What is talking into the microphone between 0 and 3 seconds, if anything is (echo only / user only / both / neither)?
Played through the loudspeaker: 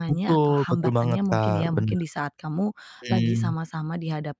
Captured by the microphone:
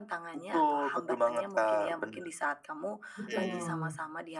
echo only